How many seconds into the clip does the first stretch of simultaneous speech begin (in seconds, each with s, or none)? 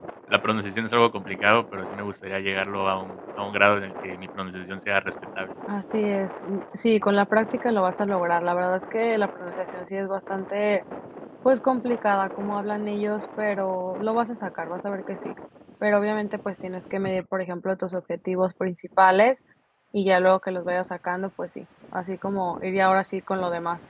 none